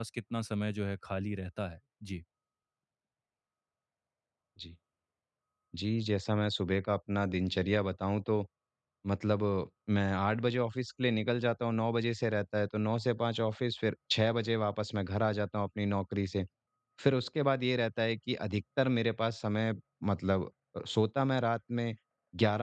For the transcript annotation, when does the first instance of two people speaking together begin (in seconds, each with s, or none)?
none